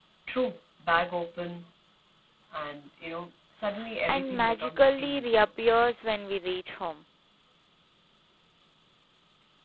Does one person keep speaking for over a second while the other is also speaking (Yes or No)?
Yes